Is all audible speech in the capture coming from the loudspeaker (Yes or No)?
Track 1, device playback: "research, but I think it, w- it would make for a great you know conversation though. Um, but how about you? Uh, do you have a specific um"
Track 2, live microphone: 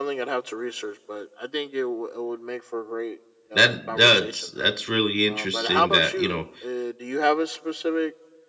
No